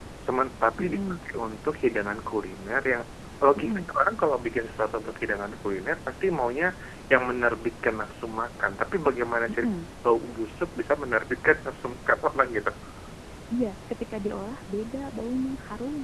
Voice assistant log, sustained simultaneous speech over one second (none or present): none